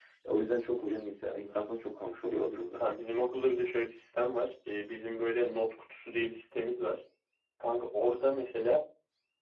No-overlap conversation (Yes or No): Yes